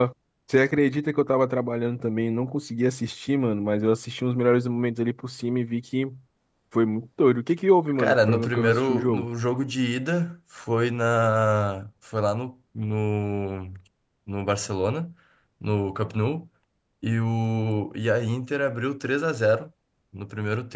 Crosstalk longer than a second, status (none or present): present